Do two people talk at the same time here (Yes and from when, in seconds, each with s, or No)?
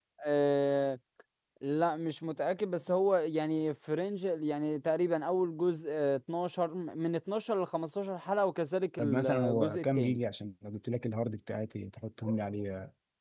Yes, from 9.0 s